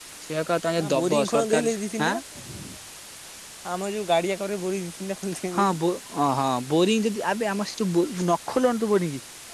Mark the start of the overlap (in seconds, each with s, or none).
0.8 s